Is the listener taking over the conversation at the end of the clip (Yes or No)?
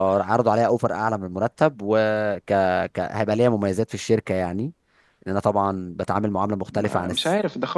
Yes